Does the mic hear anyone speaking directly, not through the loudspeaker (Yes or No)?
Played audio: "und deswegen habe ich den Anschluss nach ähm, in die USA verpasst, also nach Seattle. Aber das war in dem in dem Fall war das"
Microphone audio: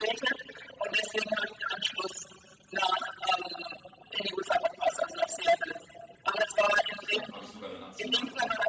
Yes